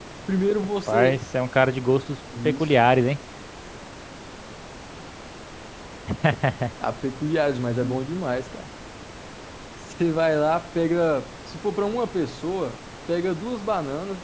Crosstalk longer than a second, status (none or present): none